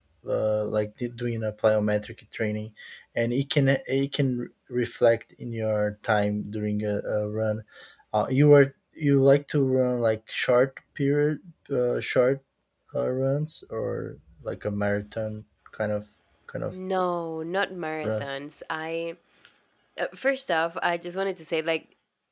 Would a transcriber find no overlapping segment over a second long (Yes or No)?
Yes